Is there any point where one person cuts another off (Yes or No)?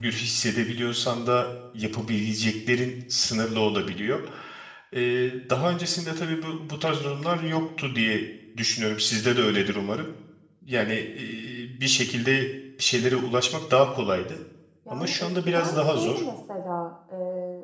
Yes